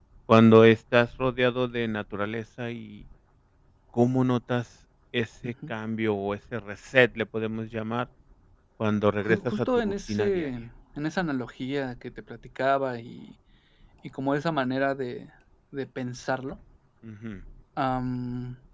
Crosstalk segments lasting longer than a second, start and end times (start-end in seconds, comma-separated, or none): 9.2-10.5